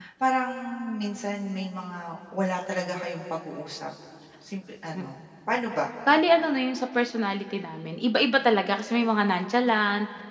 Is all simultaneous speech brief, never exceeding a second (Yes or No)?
Yes